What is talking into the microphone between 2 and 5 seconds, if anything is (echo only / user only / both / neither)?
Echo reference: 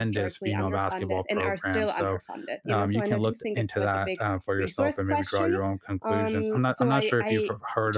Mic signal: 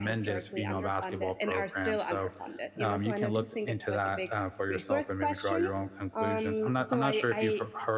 echo only